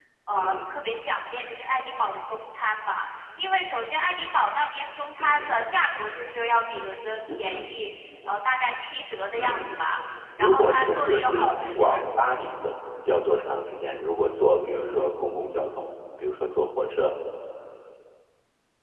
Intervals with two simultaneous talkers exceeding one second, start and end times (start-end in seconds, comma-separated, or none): 10.4-12.0